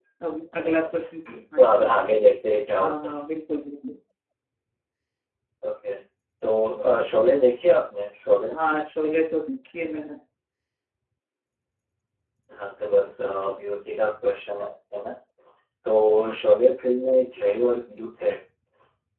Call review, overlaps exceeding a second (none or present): none